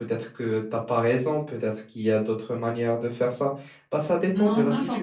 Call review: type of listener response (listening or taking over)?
taking over